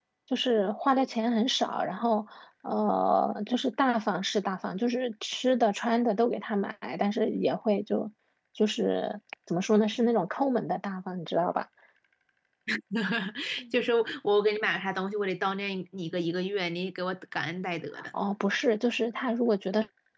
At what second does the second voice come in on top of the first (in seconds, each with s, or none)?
none